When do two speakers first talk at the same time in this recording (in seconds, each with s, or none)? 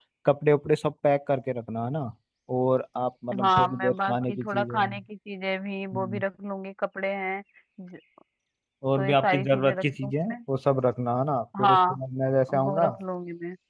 3.4 s